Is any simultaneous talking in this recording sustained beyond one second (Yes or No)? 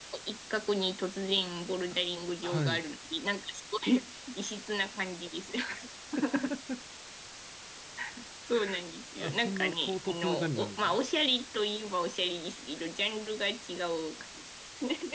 Yes